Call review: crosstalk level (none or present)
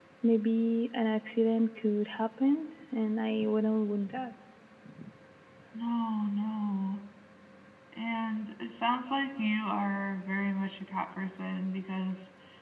none